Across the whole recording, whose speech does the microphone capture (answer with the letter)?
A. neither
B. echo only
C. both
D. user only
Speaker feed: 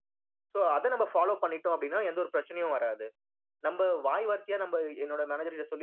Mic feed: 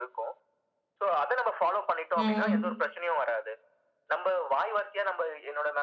C